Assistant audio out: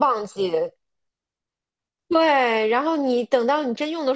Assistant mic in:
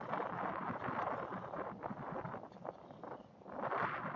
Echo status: none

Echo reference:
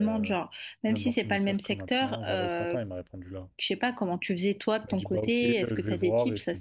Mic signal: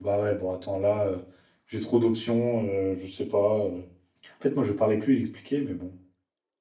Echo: none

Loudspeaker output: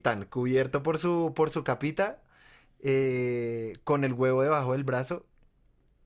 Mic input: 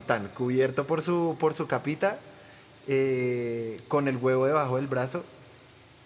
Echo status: present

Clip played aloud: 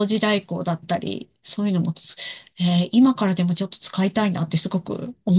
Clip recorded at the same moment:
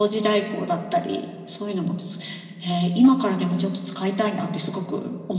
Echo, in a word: present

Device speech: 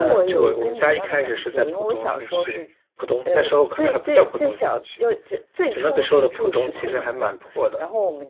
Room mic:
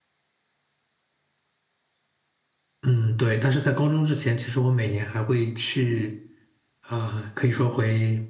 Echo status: none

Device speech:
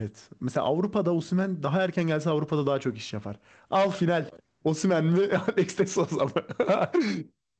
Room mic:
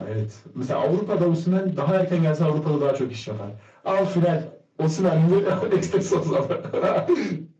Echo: present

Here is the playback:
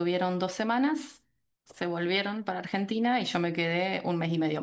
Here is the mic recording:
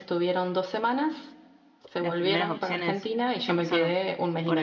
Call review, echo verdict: present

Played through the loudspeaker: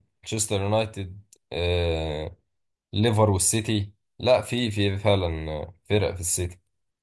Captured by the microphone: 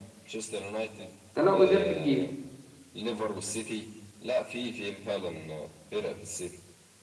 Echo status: present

